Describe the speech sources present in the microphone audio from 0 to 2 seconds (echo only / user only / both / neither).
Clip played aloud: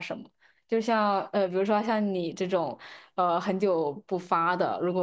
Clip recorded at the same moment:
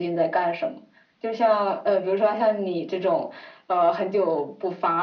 echo only